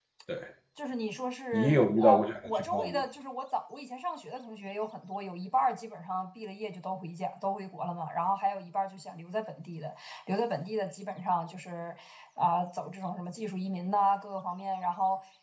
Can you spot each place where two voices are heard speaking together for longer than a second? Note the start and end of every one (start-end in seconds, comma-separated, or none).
1.5-3.0